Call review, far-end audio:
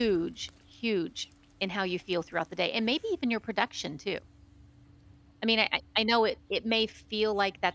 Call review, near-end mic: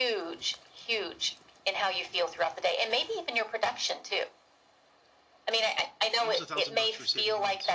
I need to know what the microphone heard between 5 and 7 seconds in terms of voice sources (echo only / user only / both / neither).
both